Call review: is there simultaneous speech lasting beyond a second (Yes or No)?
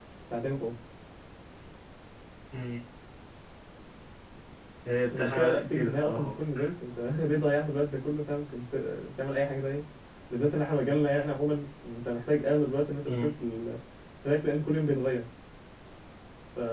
Yes